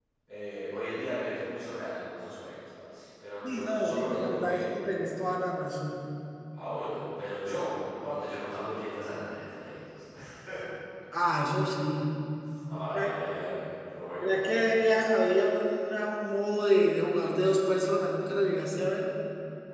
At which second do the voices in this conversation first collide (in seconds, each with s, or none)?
3.4 s